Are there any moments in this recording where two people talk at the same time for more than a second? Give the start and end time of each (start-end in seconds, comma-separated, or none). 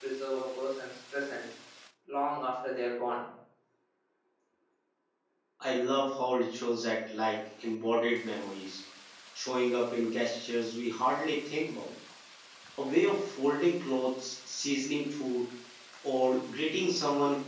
none